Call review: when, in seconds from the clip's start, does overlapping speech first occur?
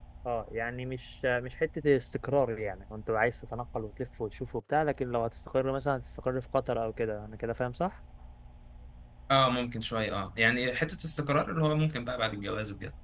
none

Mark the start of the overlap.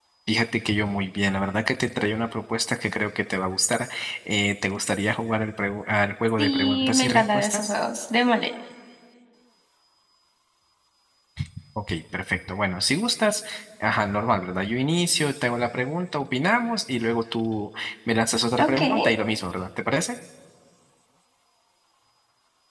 6.4 s

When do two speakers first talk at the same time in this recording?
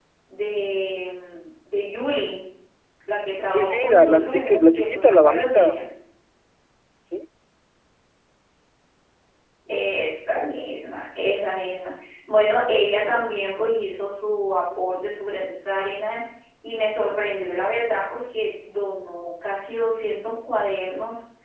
3.5 s

